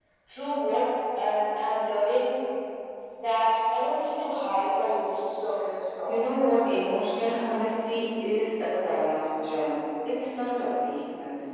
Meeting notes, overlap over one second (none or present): none